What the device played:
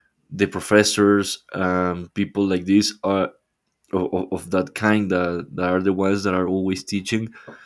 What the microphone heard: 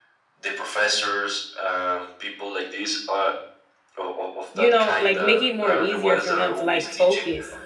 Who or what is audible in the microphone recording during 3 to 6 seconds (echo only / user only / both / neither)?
both